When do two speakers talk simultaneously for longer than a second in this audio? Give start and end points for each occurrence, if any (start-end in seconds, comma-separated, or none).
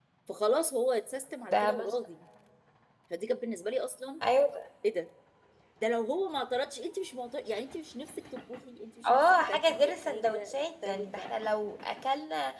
9.0-11.3